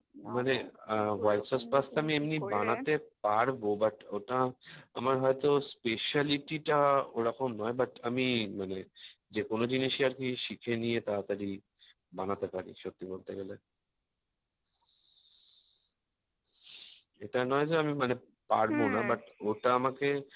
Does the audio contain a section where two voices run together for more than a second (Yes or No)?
Yes